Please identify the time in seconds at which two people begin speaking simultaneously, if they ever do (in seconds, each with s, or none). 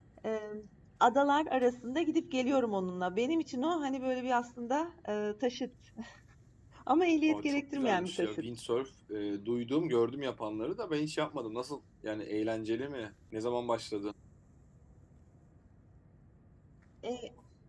7.3 s